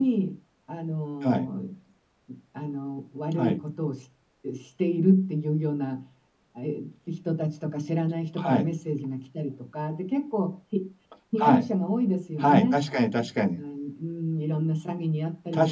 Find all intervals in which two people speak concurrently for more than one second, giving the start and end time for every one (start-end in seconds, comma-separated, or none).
none